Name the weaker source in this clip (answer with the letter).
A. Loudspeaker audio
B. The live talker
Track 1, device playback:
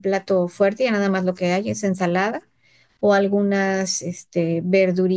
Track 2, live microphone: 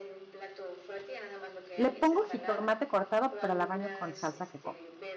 A